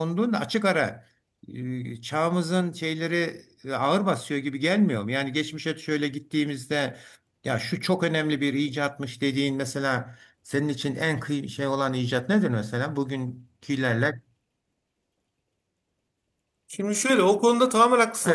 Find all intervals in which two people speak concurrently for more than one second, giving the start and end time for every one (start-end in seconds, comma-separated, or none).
none